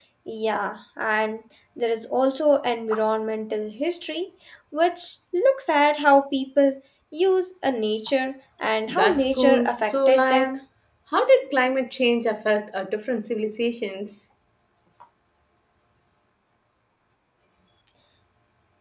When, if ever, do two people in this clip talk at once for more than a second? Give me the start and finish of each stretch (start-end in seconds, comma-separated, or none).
8.9-10.6